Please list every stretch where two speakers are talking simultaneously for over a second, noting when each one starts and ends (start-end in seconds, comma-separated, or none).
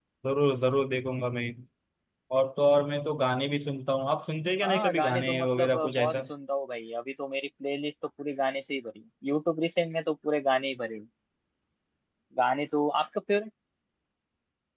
4.6-6.2